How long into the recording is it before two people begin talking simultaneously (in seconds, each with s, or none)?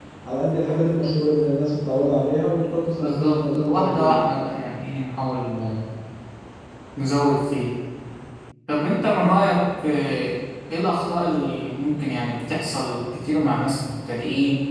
3.0 s